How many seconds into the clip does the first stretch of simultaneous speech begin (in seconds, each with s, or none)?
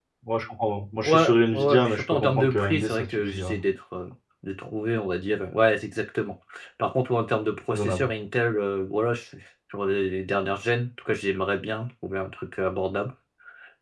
1.0 s